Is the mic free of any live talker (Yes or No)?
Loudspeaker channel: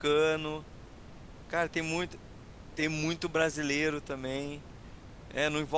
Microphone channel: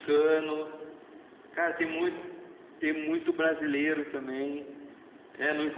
Yes